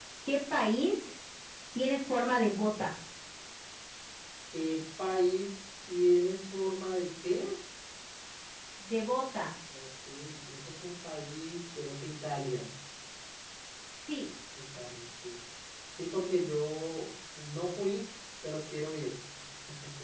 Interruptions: none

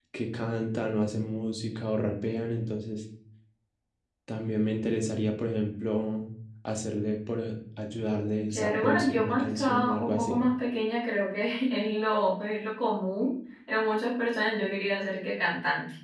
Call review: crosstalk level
present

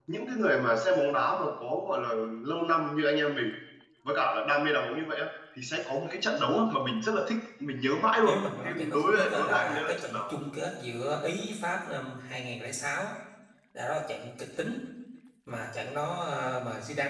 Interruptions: present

